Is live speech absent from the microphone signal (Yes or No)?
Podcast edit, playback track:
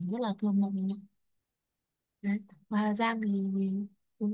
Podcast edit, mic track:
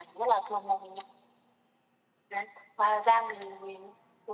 Yes